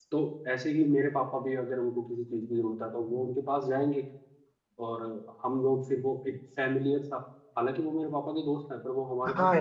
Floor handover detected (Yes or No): Yes